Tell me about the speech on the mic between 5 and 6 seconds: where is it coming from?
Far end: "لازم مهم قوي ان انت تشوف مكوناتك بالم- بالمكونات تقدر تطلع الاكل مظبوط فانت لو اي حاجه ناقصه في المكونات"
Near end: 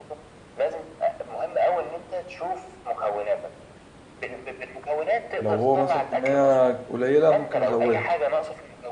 both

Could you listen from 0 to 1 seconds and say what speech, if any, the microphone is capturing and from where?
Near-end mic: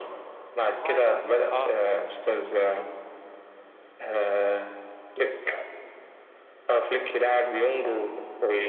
both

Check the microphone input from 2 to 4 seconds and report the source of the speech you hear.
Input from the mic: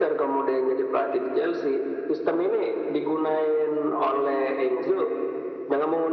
echo only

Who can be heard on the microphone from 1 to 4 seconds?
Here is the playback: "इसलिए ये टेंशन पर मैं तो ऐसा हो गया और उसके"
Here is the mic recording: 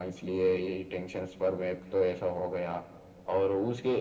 echo only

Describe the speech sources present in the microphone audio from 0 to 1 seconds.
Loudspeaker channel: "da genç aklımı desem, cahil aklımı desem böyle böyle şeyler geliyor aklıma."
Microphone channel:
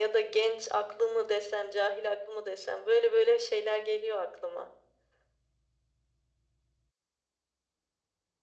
echo only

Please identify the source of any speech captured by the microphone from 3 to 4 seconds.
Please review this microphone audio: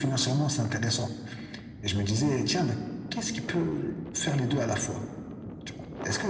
echo only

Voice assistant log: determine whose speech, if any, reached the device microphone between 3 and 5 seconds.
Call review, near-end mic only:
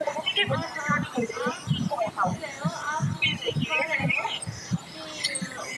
both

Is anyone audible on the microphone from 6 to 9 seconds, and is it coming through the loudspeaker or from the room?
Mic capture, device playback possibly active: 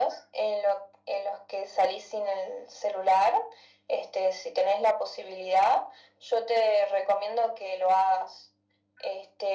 echo only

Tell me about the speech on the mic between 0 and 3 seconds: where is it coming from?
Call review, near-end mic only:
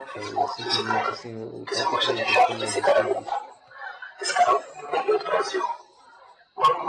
both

